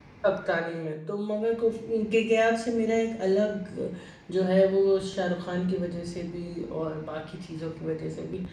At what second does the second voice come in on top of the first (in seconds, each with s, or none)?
none